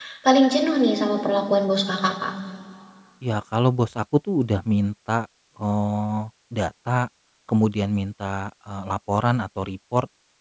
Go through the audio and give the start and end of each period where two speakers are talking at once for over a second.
none

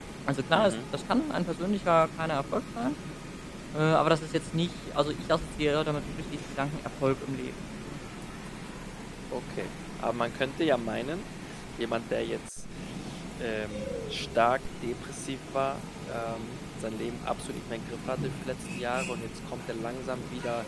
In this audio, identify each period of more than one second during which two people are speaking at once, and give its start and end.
none

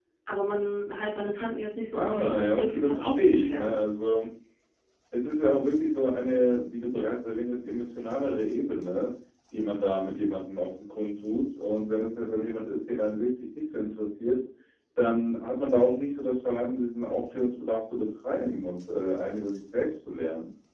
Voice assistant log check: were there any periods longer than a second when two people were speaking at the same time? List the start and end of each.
1.9-3.7

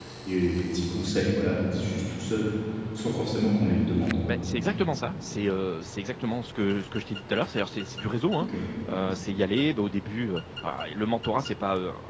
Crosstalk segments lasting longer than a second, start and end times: none

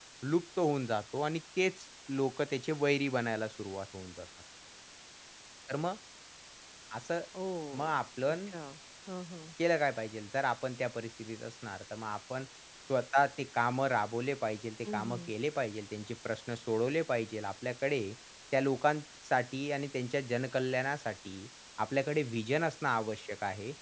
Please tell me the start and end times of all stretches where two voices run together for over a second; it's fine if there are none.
none

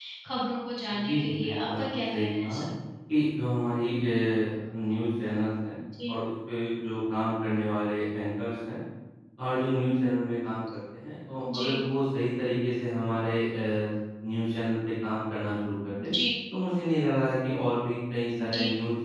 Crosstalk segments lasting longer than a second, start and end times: 0.9-2.6

